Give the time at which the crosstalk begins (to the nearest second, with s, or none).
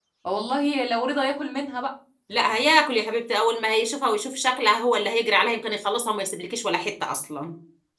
none